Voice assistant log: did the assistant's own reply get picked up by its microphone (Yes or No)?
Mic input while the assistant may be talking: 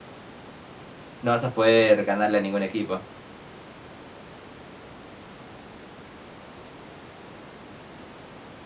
No